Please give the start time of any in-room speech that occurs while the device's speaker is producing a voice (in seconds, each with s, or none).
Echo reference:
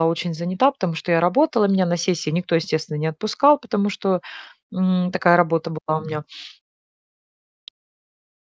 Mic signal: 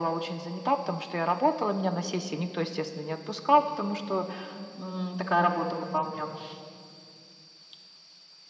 none